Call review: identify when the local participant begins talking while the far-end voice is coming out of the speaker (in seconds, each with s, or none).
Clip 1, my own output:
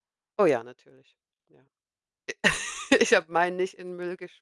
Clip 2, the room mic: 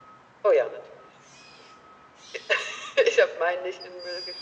none